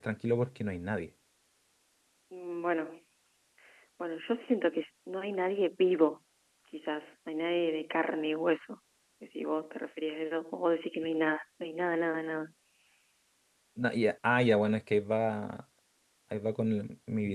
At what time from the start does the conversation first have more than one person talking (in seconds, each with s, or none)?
none